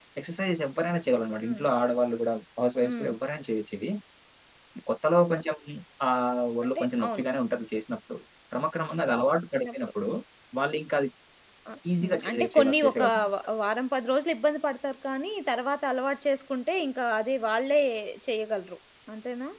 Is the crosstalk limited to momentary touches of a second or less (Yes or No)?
No